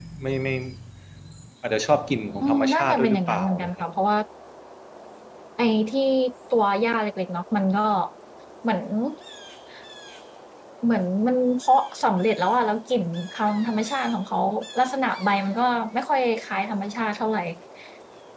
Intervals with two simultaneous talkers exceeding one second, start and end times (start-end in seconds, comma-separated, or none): 2.4-3.7